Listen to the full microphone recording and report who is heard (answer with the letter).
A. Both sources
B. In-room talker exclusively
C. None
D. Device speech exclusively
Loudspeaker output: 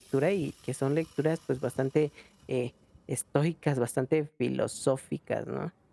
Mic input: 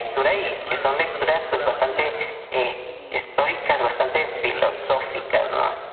A